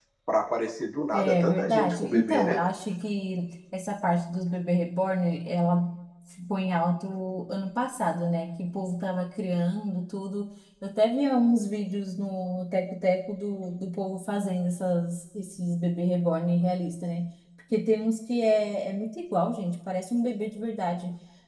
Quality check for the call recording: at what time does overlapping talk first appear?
1.1 s

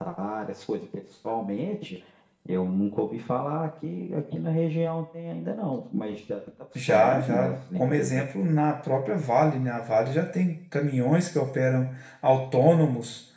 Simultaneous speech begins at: 6.8 s

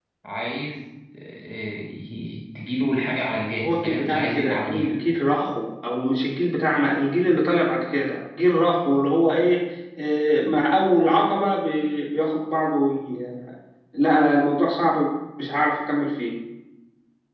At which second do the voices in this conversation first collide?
3.6 s

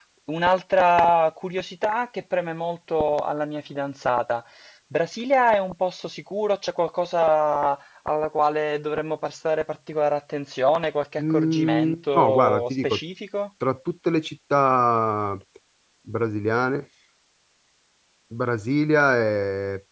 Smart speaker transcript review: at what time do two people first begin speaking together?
11.2 s

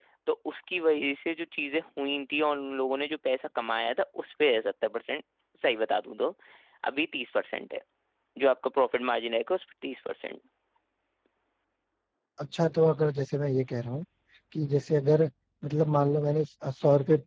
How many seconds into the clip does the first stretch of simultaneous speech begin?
none

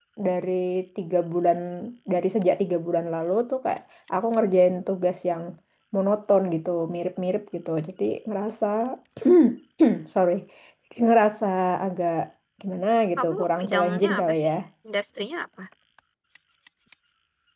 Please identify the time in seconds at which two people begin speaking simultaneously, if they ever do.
13.2 s

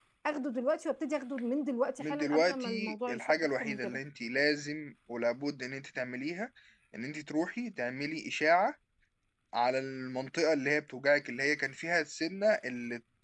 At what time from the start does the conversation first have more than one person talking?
2.0 s

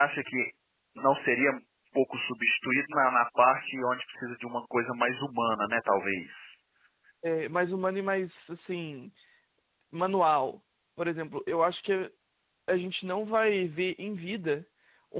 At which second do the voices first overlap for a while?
none

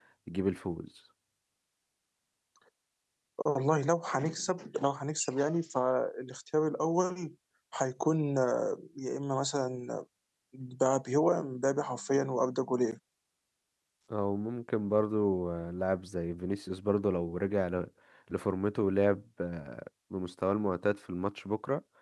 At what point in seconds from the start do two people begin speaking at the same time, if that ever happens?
none

